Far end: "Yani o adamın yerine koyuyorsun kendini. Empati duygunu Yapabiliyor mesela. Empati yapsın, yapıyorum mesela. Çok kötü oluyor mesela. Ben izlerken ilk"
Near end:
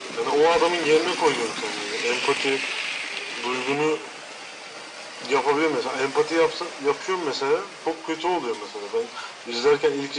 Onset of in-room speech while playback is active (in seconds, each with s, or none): none